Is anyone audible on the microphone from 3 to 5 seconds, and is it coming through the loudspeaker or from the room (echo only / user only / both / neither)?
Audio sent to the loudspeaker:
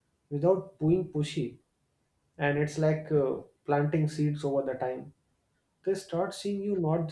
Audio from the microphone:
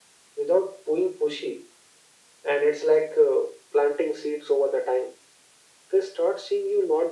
echo only